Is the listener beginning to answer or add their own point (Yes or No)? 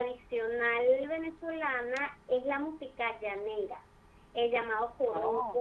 No